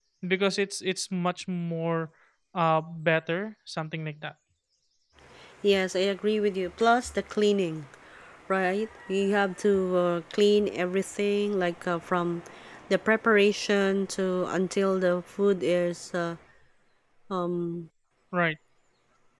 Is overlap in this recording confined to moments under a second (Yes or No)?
Yes